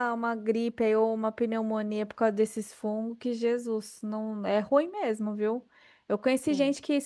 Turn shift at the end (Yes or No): No